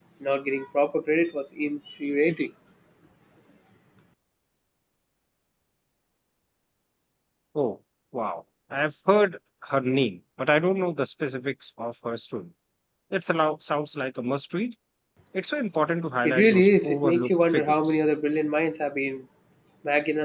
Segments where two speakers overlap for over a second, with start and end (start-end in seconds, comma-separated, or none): 16.2-18.0